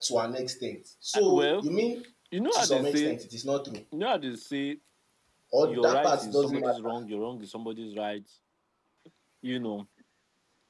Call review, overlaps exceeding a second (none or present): present